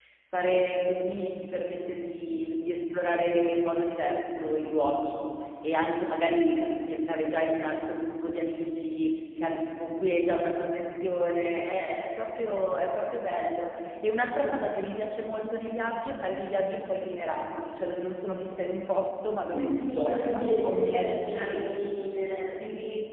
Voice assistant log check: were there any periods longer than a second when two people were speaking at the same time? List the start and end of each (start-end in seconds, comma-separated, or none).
19.5-21.6